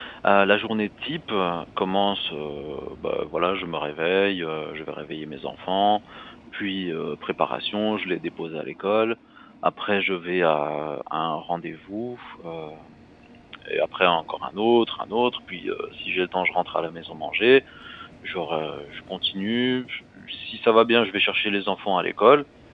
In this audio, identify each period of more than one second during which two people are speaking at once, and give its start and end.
none

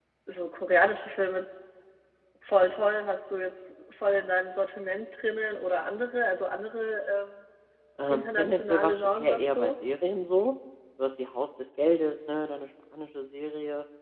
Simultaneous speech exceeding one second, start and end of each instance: 8.1-9.7

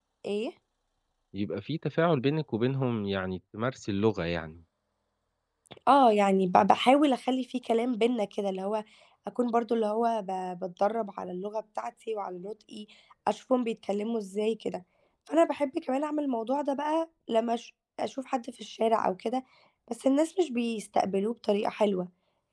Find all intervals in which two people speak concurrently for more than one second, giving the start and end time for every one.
none

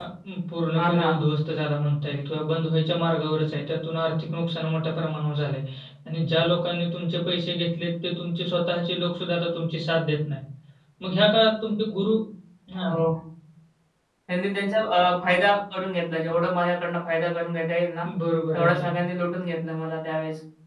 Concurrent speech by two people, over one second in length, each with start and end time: none

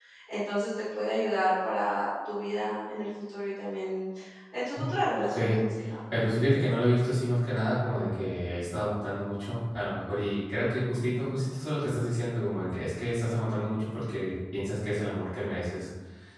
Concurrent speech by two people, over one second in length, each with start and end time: none

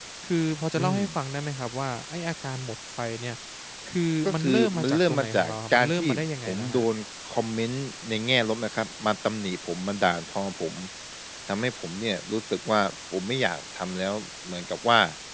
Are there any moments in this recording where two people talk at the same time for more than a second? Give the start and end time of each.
4.3-6.8

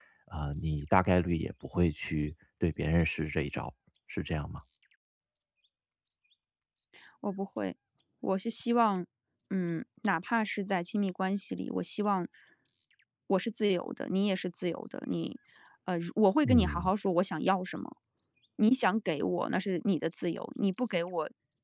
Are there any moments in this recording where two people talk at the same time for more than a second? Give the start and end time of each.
none

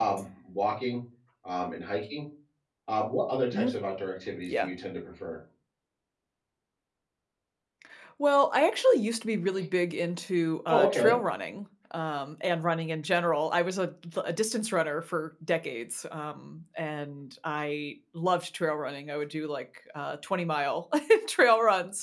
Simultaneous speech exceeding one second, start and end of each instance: none

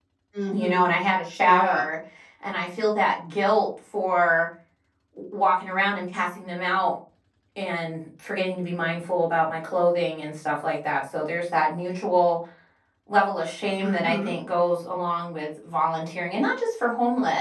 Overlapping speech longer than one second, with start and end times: none

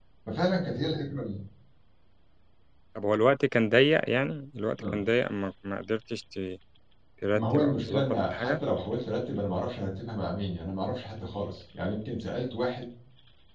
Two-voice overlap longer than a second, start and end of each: 7.3-8.6

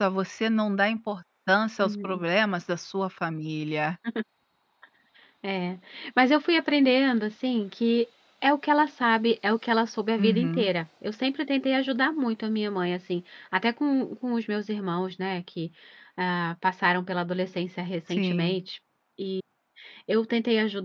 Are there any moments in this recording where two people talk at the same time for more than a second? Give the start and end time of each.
none

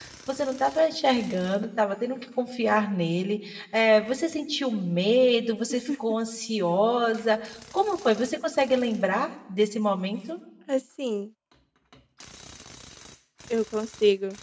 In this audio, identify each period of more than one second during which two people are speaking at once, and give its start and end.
none

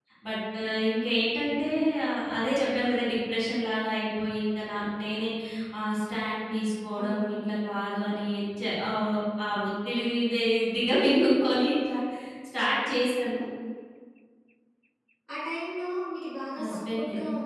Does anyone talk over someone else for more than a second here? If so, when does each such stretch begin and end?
none

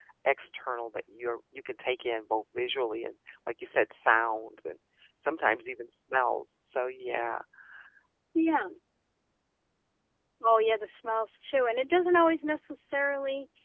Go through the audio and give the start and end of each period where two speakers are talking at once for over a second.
none

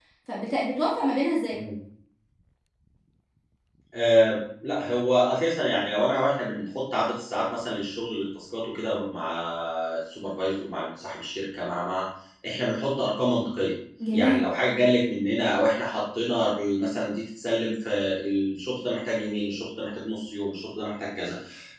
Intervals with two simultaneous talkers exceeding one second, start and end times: none

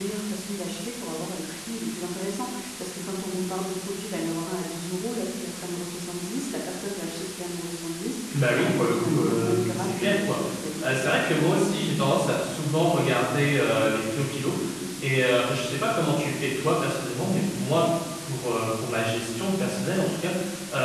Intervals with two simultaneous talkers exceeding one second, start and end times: 8.6-10.4

